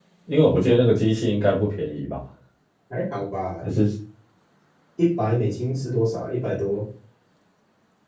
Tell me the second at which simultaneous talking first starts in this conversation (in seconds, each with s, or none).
none